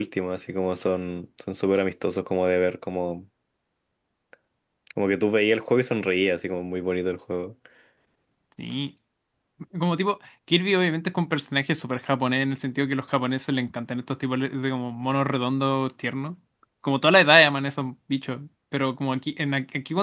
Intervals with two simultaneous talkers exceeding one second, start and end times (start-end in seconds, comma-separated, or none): none